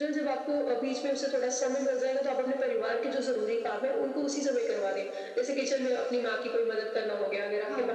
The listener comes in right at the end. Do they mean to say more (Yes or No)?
No